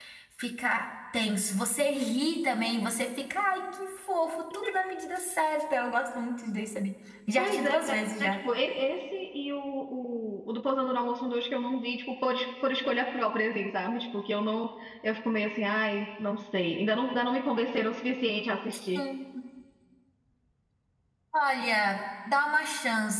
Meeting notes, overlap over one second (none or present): none